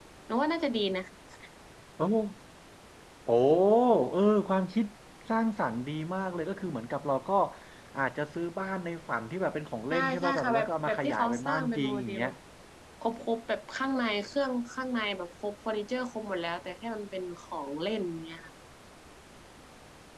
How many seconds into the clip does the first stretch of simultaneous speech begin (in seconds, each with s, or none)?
9.9 s